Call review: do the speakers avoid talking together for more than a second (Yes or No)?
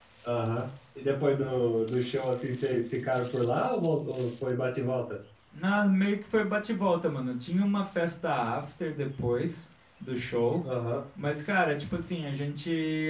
Yes